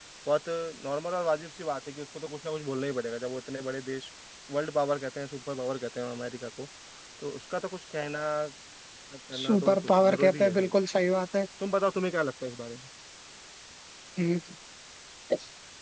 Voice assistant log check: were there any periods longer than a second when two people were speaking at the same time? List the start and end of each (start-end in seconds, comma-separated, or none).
9.3-10.7